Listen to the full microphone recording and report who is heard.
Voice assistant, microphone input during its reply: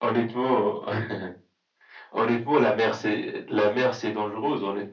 echo only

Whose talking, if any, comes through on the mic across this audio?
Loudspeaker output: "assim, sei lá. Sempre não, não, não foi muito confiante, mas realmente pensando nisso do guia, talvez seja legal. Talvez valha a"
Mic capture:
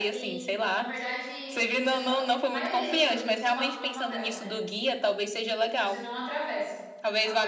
both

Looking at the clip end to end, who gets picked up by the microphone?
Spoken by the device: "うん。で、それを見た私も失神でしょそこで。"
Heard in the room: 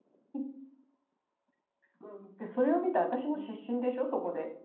both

